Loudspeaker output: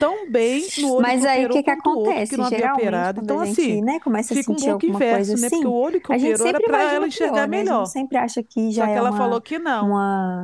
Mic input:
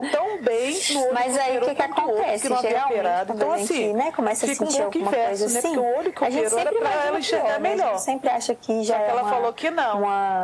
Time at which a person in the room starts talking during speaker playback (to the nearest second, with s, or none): none